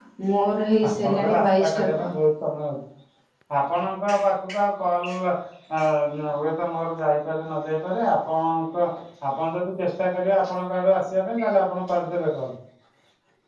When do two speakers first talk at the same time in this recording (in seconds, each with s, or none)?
0.9 s